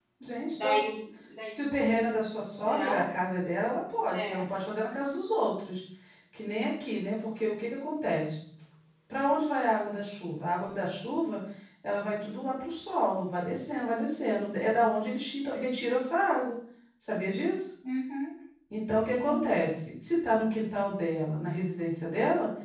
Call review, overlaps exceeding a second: none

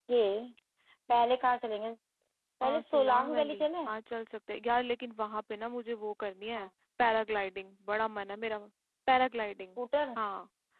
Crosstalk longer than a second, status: present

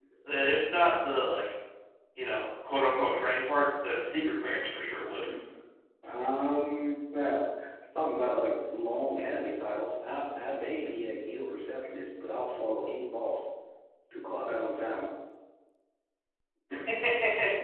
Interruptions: none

